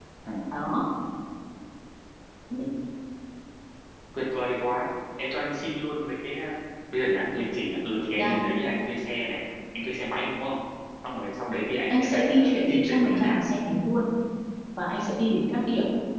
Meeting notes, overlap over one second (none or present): present